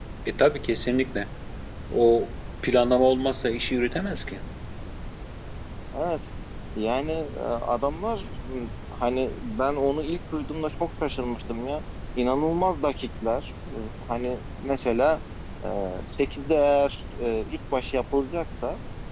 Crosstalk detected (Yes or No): No